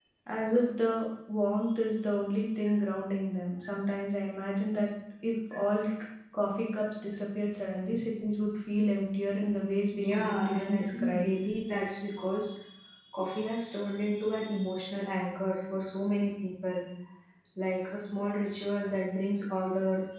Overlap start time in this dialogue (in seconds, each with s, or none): 9.9 s